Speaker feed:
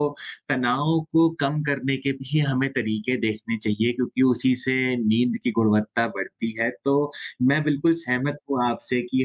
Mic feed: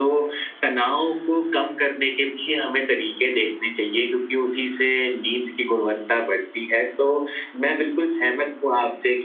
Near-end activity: none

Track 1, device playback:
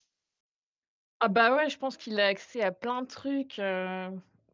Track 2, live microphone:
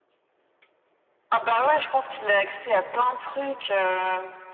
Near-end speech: present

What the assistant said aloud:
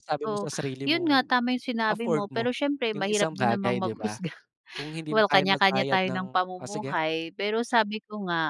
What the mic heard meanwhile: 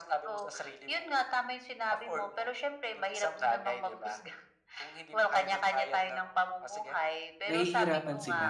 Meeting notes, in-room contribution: present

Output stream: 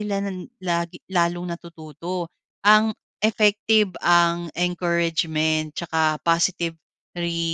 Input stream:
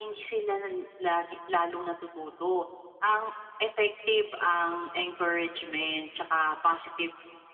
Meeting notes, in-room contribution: none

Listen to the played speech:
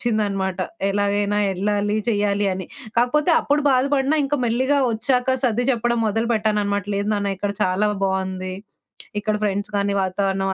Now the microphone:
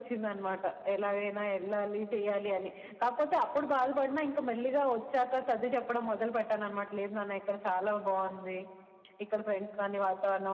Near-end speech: none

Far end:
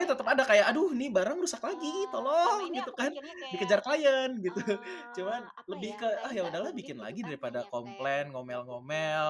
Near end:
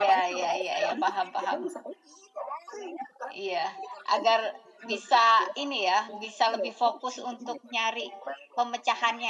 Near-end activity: present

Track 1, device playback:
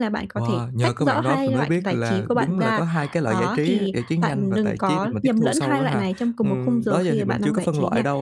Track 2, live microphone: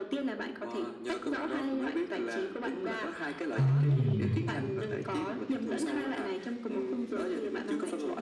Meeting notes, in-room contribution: present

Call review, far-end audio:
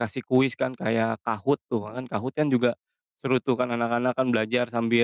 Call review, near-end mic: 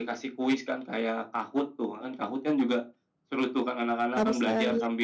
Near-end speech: present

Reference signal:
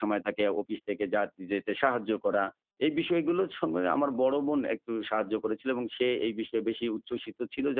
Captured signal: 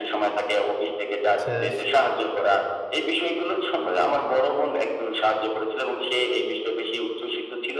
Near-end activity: present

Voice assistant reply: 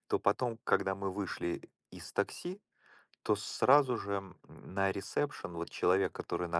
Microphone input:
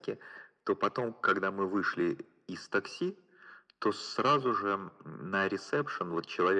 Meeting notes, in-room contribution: none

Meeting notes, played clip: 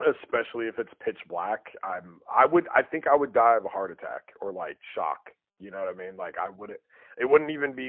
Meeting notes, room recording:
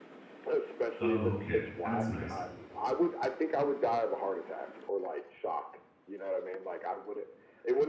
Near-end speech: present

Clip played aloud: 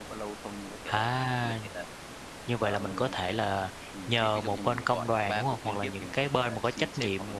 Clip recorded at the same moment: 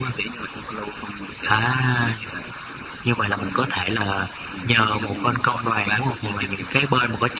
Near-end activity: none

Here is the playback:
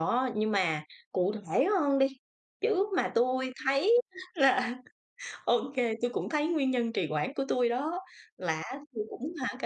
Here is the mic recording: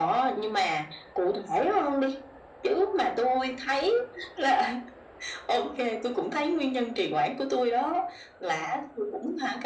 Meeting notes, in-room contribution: none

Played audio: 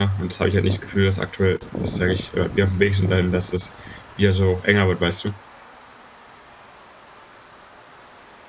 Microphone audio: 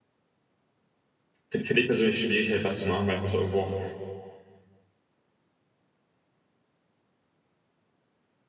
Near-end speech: present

